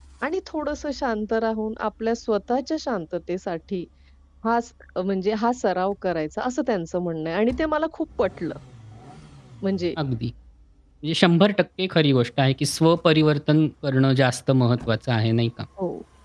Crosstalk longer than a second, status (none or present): none